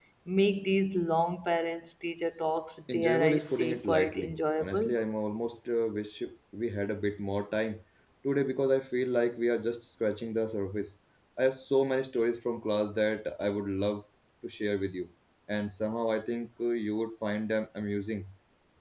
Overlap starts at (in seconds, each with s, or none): 2.9 s